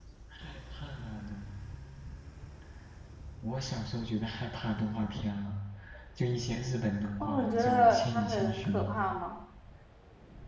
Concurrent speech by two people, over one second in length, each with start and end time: 7.2-8.7

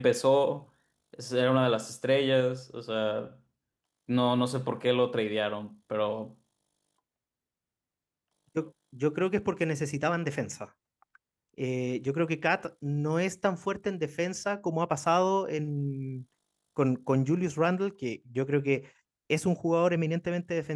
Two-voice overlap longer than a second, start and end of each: none

